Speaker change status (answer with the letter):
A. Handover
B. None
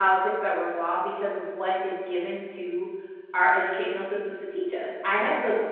B